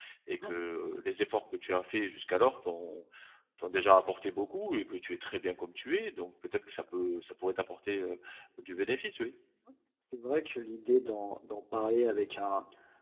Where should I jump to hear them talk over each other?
none

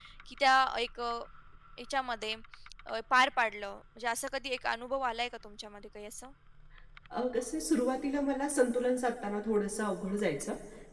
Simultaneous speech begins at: none

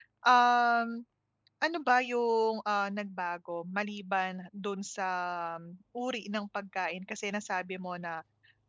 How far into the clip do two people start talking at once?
none

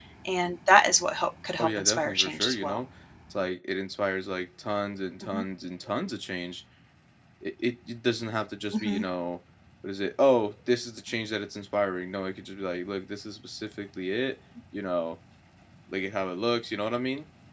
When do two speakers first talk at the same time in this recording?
1.6 s

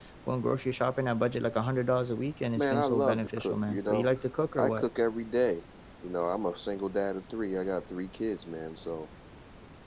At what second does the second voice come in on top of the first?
2.6 s

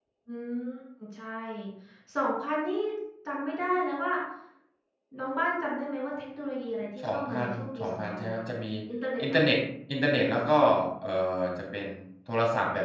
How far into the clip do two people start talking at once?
7.0 s

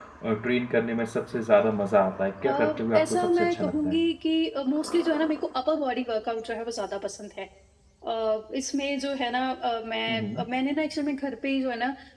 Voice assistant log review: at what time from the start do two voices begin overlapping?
2.5 s

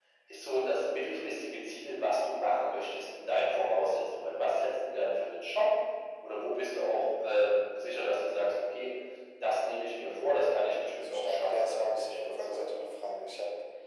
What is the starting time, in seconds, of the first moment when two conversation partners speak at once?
11.0 s

